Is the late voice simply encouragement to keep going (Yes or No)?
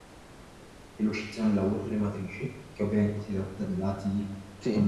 Yes